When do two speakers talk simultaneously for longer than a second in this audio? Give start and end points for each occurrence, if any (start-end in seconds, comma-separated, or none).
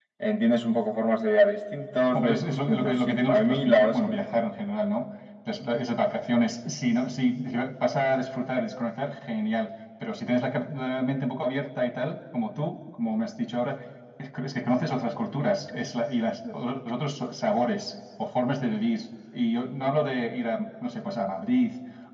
2.1-4.5